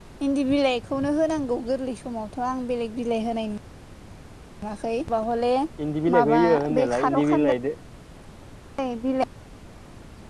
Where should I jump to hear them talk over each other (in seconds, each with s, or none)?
6.1 s